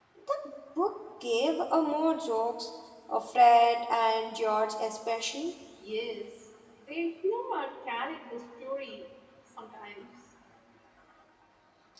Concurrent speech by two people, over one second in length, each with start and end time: none

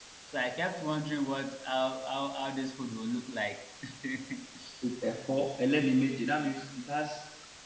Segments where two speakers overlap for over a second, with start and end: none

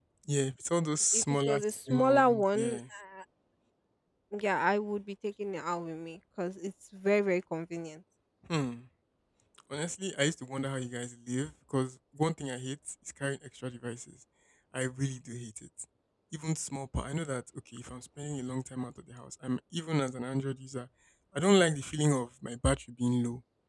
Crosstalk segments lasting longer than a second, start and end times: 1.1-2.8

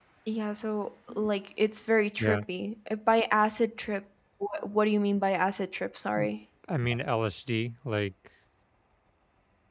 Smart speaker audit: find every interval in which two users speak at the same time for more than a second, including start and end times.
none

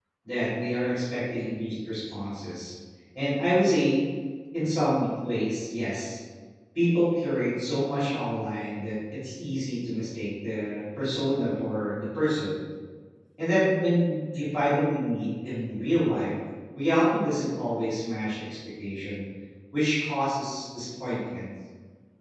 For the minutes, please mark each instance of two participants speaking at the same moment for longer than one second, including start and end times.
none

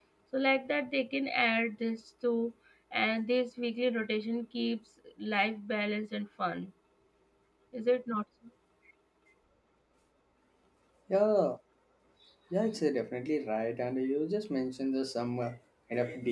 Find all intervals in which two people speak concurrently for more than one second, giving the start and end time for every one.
none

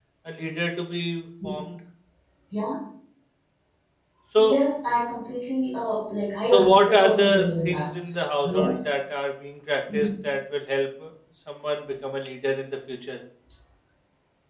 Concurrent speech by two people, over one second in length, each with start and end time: 6.5-7.9

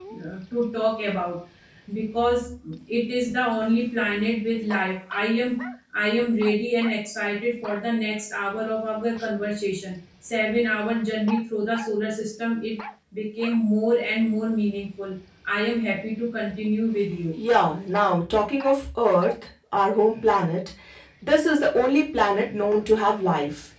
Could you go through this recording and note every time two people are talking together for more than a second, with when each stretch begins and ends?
none

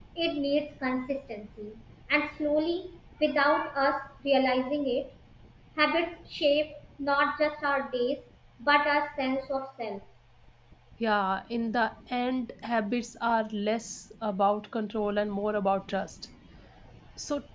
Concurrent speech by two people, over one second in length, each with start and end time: none

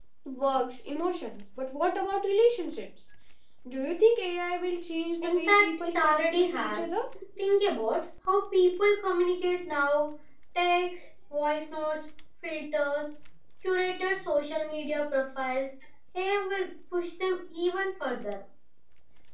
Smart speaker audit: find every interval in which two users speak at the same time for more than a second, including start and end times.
5.2-6.8

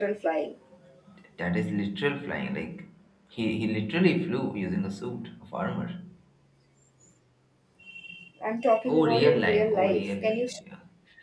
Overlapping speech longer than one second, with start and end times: 8.9-10.4

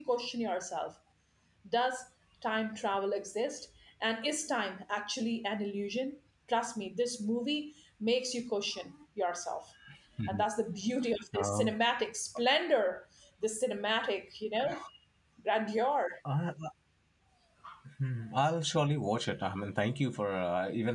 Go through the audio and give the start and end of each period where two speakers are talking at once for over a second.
none

